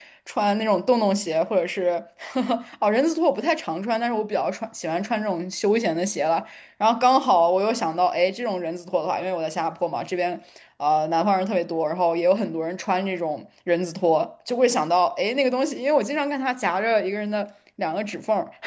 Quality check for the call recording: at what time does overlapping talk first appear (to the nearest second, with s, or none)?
none